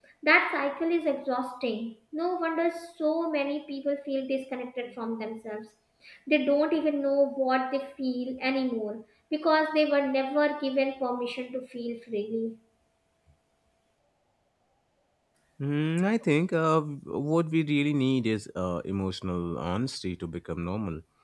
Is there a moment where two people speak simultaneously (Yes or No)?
No